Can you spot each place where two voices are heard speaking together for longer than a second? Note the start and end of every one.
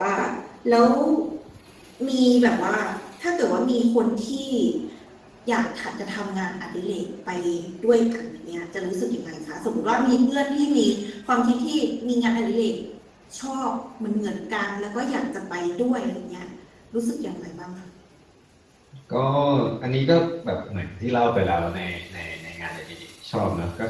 none

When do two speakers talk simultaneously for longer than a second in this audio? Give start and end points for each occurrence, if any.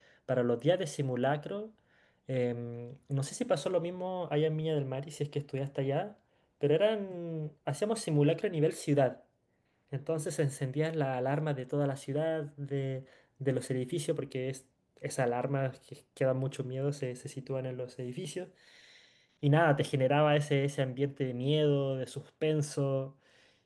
none

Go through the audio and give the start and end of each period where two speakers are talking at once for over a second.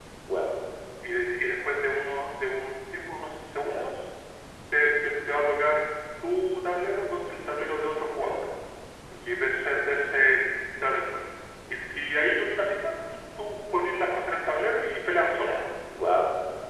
none

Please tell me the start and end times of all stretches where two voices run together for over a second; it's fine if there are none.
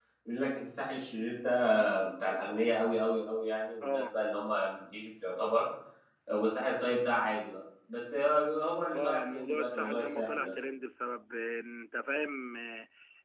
8.9-10.5

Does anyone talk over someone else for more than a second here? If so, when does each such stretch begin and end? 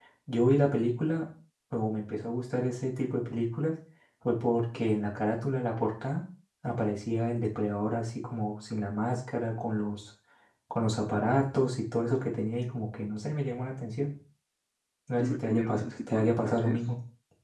15.2-16.8

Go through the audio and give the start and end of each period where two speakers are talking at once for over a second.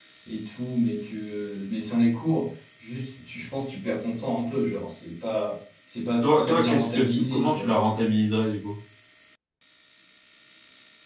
6.2-7.8

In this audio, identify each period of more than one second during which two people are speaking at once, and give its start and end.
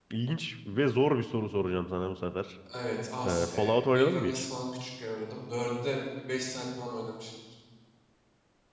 3.2-4.4

